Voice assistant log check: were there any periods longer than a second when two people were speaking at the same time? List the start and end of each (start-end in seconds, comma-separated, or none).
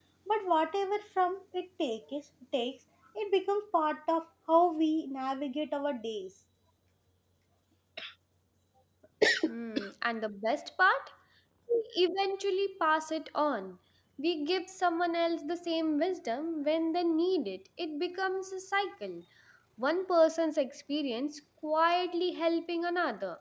none